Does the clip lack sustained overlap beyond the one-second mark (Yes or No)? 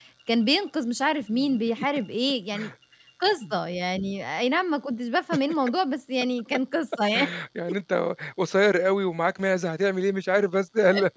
Yes